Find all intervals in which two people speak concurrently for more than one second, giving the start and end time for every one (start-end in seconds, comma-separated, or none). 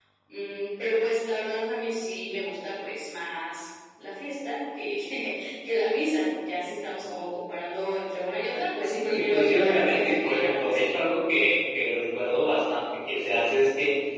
8.8-10.9